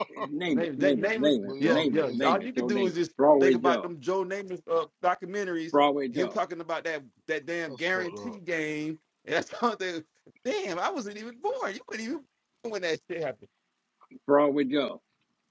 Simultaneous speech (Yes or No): Yes